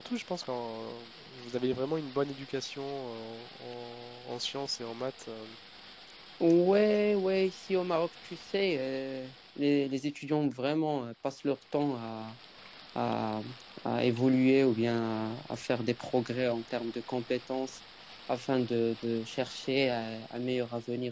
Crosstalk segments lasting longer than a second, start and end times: none

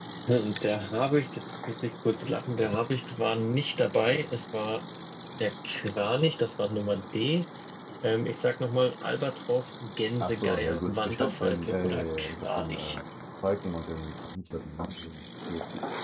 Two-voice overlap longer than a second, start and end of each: 10.2-13.0

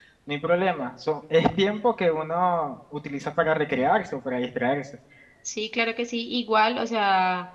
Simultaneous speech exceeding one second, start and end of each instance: none

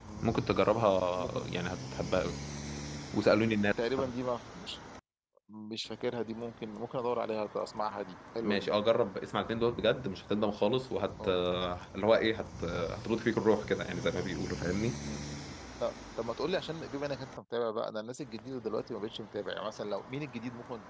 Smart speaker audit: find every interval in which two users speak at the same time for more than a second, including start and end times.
none

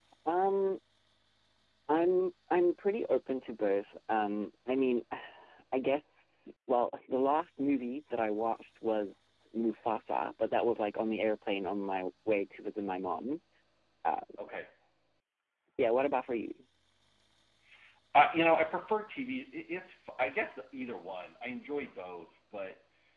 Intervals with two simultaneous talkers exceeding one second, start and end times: none

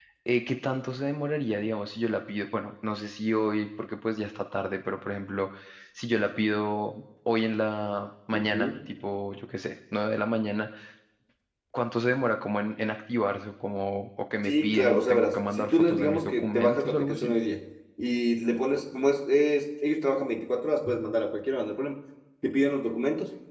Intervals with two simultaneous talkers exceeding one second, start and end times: 14.4-17.3

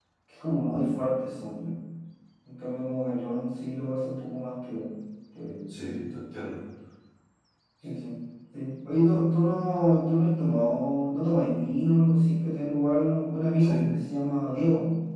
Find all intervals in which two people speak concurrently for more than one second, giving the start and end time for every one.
none

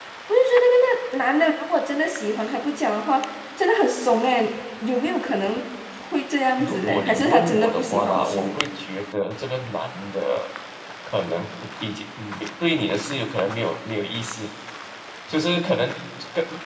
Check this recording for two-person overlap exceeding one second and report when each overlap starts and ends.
6.6-8.6

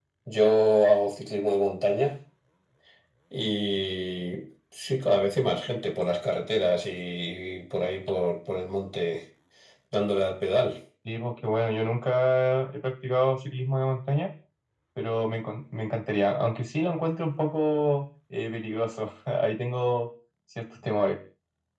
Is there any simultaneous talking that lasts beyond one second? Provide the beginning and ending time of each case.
none

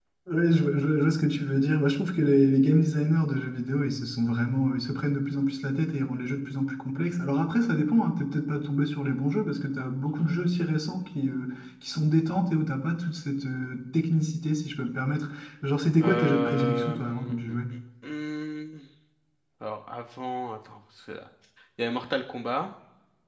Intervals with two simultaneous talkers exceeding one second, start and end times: 16.0-17.6

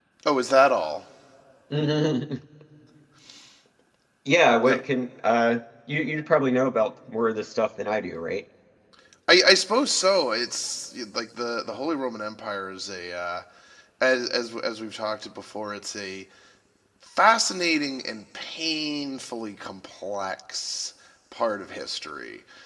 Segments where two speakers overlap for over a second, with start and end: none

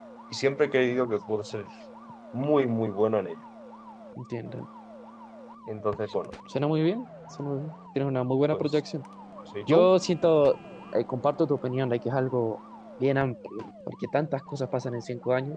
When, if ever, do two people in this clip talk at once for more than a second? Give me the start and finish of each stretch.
none

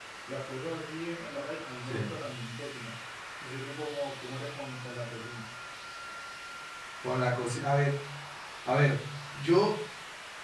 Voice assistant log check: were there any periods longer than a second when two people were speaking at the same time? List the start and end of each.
none

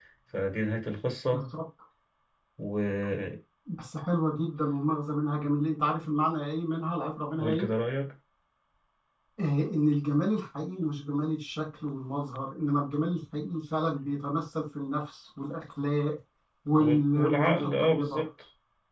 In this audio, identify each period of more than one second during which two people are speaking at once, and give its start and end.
16.8-18.2

